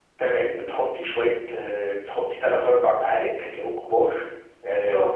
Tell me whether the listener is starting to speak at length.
No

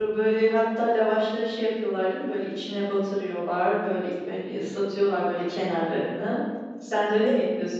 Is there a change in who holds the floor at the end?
No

